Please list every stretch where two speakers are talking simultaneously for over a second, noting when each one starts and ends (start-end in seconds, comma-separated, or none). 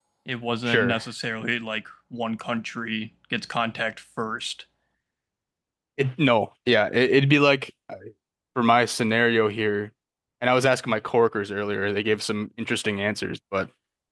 none